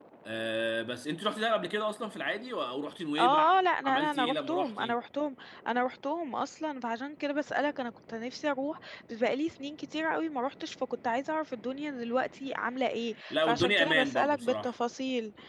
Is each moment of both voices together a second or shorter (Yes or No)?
No